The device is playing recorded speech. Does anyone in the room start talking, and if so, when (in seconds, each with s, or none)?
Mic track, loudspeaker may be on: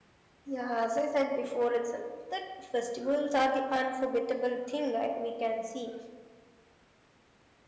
0.4 s